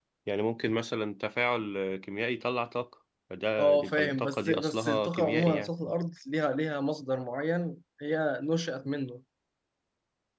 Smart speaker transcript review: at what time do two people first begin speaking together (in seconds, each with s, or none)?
3.6 s